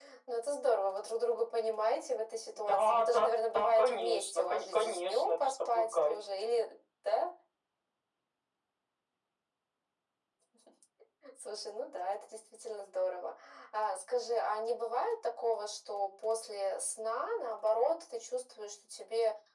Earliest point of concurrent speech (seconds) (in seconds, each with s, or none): 2.6 s